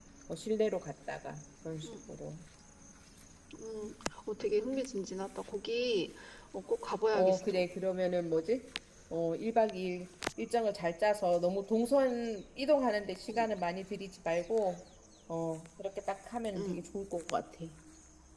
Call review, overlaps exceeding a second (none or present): none